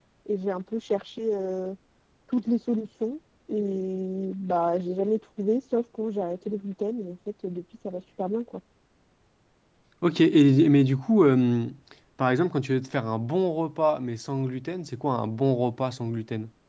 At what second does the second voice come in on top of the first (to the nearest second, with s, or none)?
none